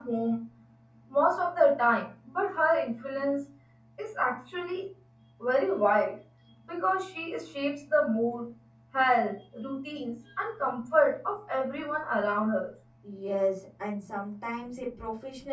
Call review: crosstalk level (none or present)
none